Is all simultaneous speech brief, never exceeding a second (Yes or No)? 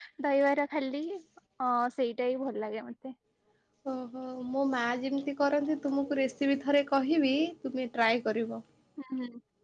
Yes